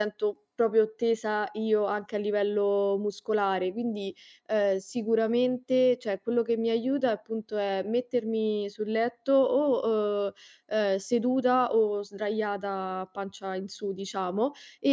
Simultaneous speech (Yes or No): No